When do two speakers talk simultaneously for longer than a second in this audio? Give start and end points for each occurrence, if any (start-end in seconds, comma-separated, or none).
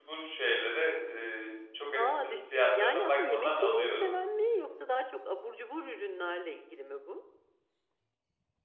1.9-4.1